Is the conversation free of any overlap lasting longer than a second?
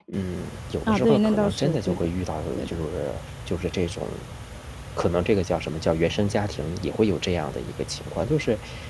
No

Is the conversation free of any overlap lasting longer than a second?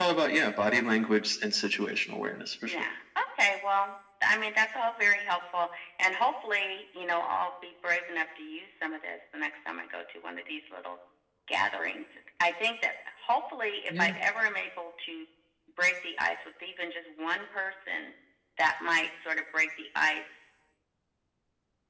Yes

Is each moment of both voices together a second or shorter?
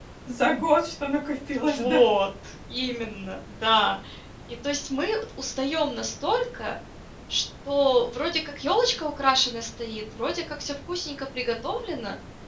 Yes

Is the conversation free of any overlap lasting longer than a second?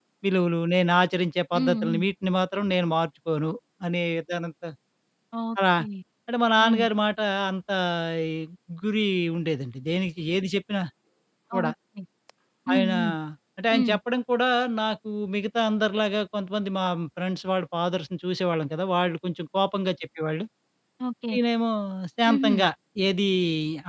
Yes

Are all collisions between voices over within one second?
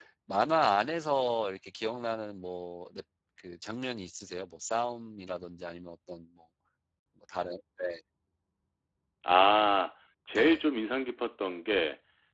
Yes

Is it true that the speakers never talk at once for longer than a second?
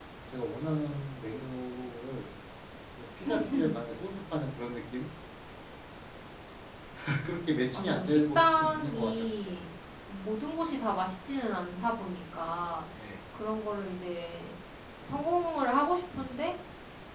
No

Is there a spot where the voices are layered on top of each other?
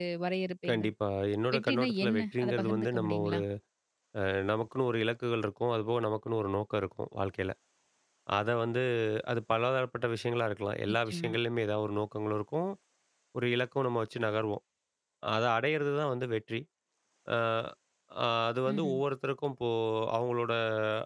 Yes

